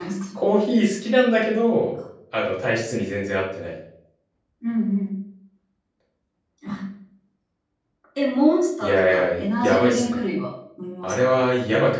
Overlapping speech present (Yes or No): Yes